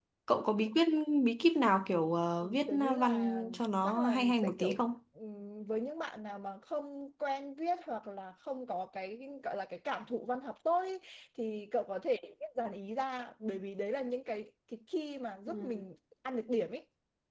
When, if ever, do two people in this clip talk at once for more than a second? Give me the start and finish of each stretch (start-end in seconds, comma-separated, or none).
2.7-4.8